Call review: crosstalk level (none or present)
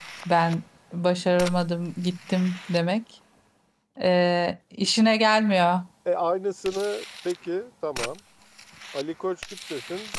none